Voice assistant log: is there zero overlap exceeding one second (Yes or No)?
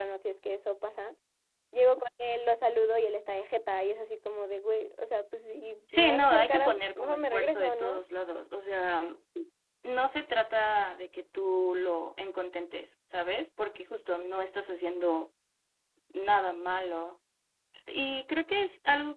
No